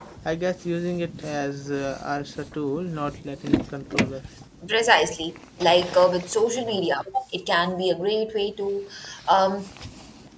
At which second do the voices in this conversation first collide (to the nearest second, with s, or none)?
none